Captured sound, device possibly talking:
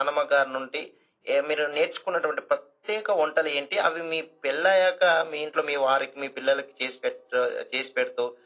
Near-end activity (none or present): none